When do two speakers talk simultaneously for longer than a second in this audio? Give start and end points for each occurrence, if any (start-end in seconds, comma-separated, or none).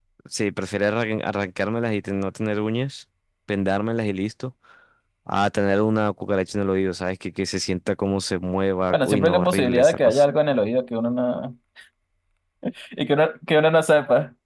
8.9-10.2